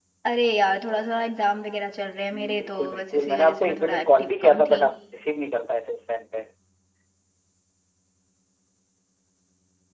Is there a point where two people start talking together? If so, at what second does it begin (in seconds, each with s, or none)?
2.3 s